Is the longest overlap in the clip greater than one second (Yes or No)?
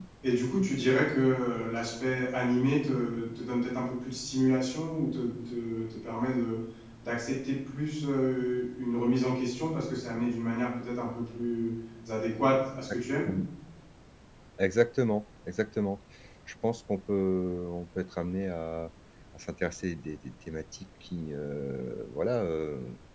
No